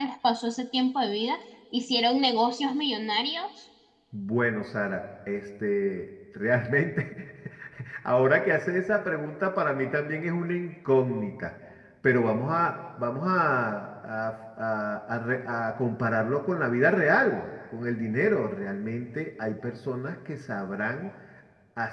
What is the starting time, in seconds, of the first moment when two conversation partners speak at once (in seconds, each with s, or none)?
none